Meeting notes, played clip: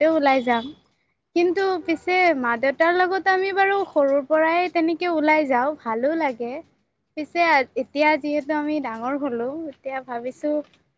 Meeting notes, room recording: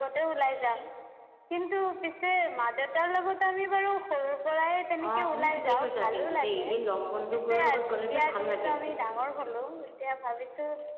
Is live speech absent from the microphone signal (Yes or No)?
No